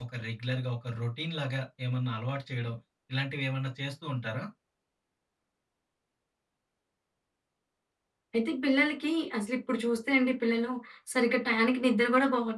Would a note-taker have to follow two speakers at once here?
No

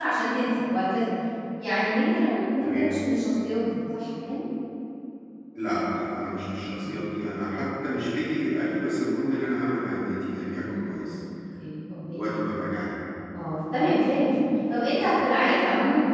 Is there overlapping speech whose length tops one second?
No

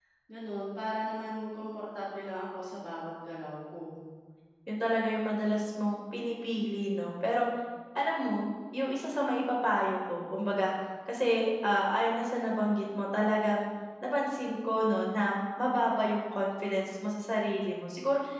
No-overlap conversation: Yes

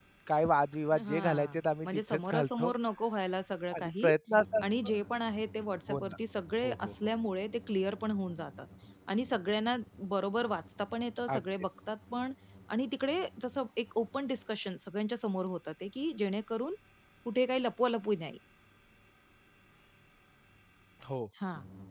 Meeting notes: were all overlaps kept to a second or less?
No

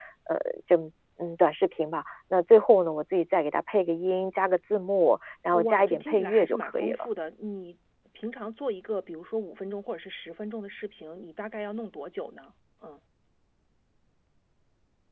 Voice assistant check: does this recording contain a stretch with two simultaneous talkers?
Yes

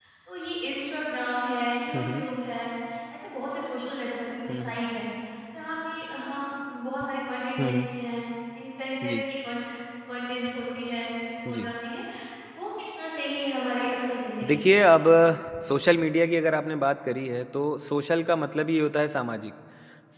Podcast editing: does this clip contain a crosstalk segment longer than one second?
No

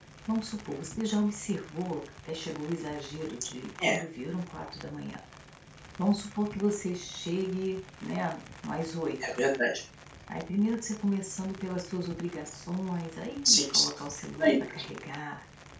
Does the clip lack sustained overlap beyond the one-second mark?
Yes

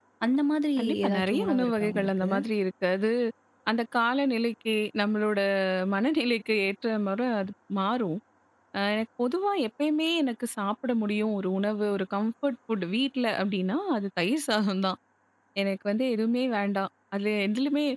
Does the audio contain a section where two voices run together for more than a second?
Yes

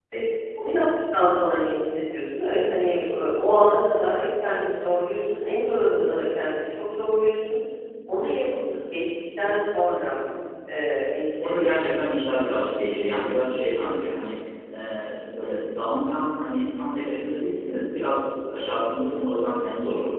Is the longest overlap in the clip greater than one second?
No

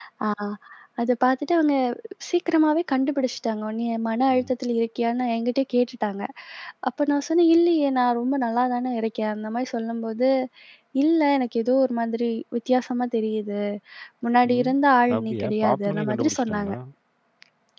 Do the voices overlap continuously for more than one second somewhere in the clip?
Yes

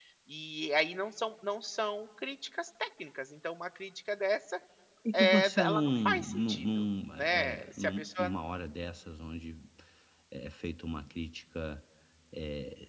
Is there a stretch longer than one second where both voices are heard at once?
Yes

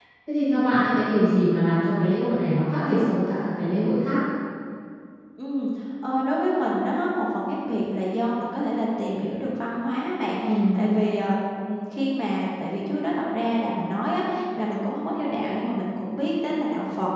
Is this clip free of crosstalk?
Yes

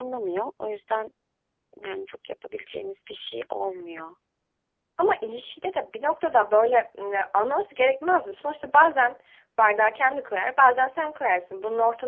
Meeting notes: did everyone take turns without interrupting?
Yes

